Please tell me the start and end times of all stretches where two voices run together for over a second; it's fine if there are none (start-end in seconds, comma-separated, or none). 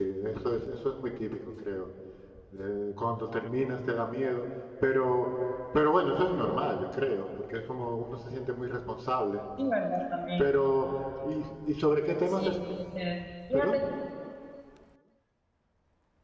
none